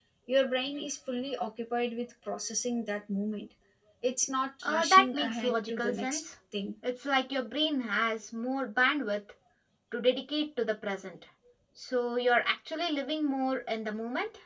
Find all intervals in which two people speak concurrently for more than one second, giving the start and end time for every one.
4.6-6.2

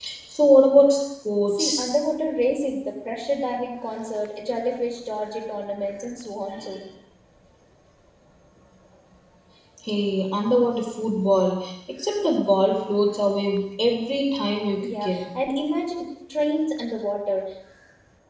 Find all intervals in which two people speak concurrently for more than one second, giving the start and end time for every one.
none

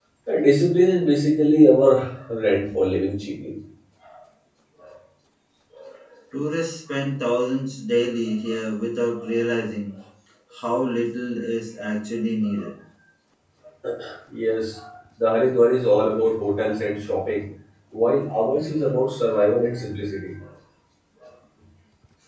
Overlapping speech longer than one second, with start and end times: none

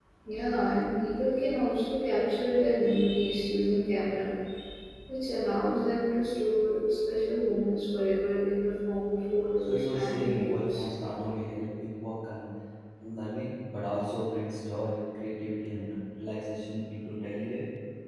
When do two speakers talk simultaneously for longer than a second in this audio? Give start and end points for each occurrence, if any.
9.6-10.9

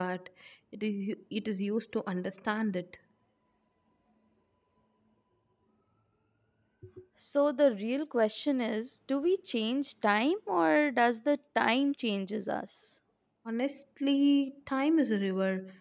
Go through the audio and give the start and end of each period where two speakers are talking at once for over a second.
none

